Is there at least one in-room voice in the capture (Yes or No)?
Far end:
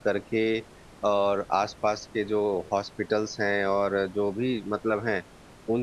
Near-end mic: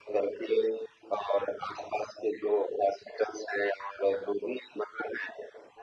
No